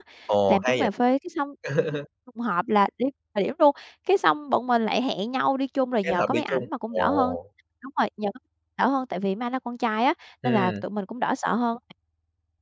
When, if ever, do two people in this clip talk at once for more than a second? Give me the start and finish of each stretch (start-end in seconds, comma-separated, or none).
6.0-7.3